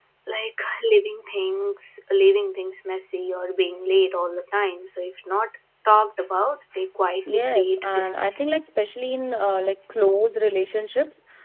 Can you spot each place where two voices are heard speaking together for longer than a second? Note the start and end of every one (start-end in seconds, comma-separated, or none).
7.3-8.5